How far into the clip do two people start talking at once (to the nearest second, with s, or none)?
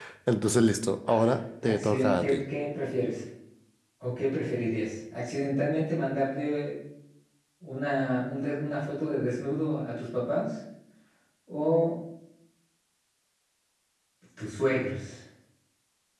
1 s